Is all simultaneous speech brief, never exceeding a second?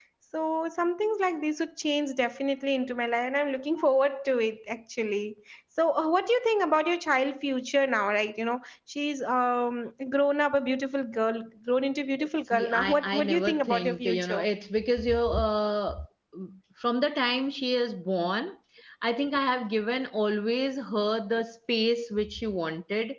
No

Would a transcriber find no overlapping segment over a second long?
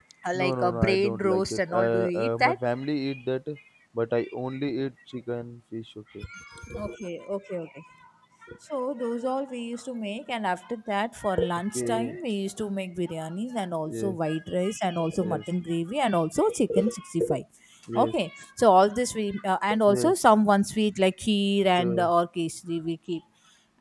No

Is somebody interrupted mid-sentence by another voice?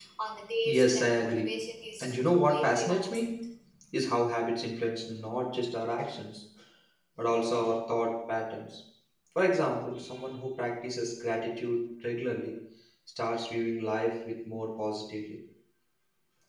Yes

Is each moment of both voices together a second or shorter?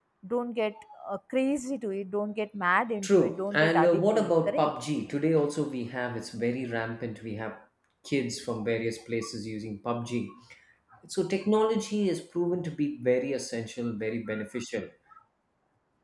No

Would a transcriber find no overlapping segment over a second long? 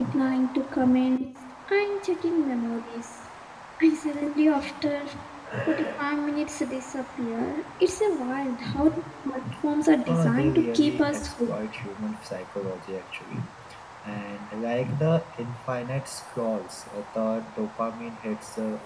No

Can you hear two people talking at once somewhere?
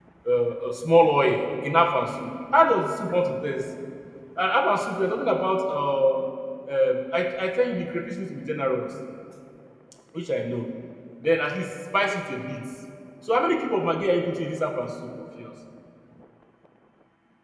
No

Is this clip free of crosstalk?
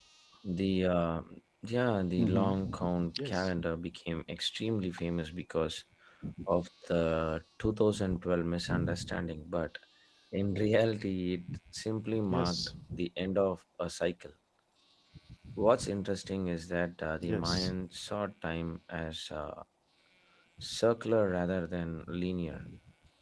No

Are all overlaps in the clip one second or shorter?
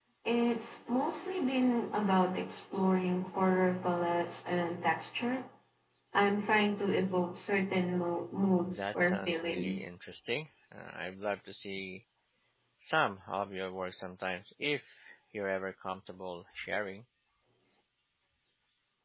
No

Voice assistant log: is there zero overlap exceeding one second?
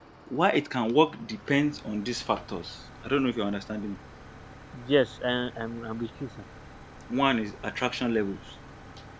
Yes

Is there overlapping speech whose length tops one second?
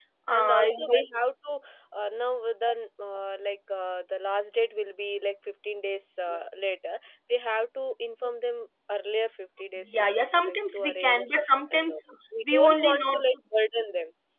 Yes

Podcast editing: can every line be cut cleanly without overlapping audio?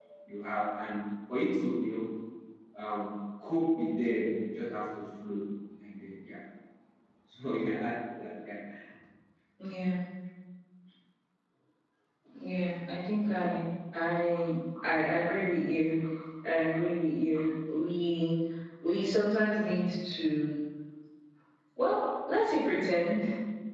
Yes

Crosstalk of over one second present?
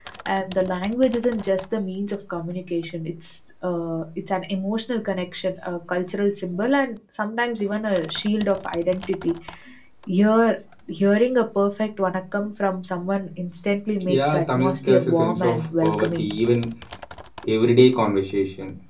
Yes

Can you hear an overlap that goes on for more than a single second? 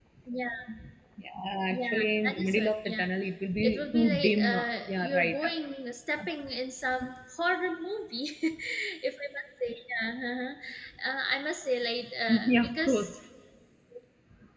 Yes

